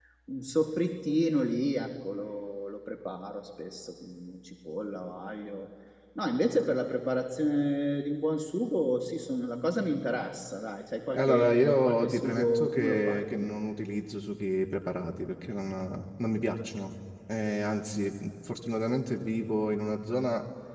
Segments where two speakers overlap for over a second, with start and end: 11.1-13.5

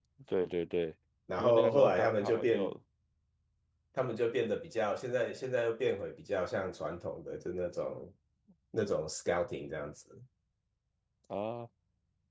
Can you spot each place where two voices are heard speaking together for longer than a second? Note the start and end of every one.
1.4-2.7

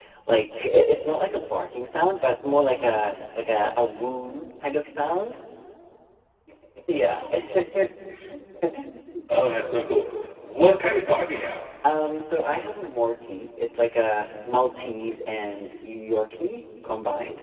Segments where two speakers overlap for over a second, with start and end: none

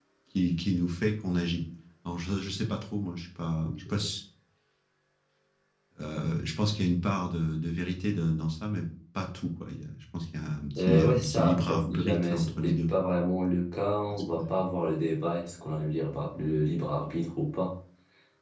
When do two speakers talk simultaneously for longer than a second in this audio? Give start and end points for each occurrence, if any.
10.8-12.9

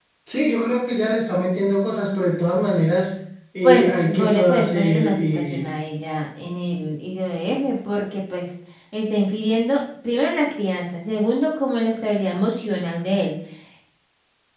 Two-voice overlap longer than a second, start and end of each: 3.6-5.7

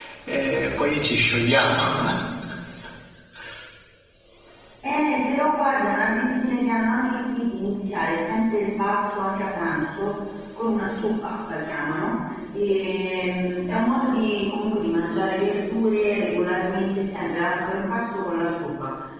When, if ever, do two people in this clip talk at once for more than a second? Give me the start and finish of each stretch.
none

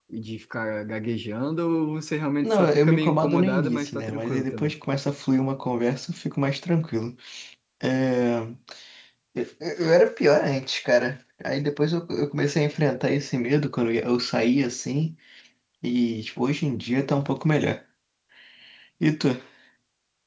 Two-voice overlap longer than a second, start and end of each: 2.4-4.7

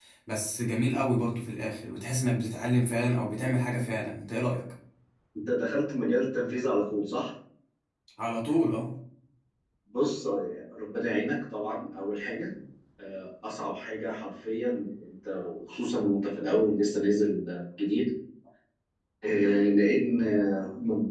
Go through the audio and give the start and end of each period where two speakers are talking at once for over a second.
none

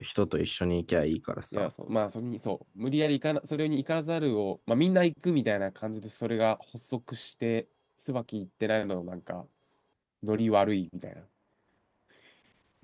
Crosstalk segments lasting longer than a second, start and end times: none

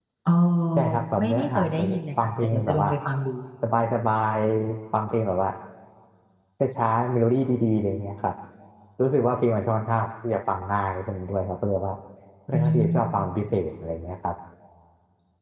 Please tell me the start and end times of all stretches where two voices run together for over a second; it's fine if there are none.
0.8-2.9

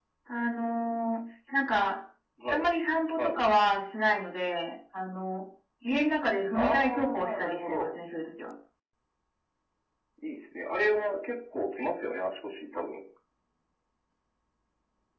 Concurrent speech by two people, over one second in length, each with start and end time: 6.5-7.9

